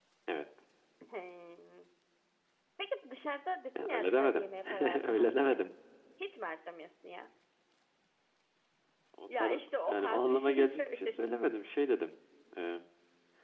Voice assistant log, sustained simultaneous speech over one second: present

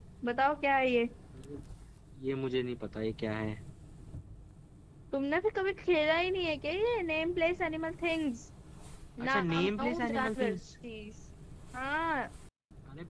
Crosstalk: present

